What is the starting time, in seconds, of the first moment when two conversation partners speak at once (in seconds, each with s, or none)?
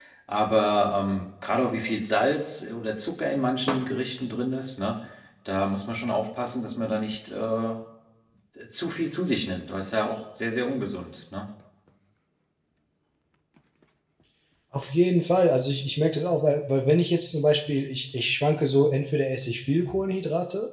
none